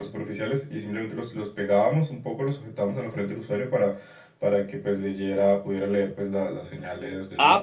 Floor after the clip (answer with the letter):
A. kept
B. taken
B